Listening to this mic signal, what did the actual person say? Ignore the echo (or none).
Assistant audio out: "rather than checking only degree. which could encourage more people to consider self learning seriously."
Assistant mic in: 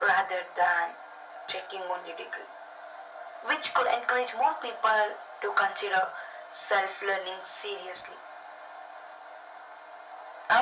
none